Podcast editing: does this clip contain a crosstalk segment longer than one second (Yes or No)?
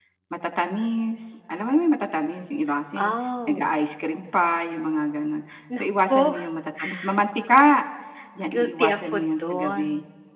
Yes